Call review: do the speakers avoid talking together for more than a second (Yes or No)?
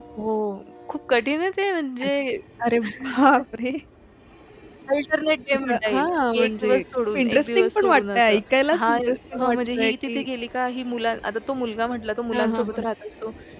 No